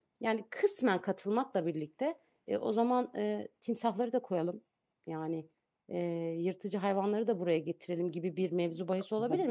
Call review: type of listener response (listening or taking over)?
listening